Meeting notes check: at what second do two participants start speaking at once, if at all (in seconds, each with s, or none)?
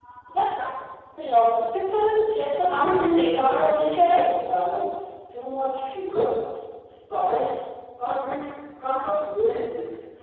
2.5 s